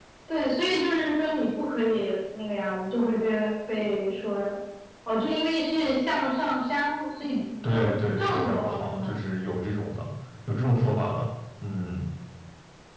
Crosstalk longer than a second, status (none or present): present